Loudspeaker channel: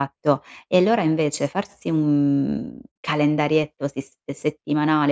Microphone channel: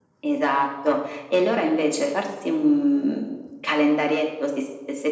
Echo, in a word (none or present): present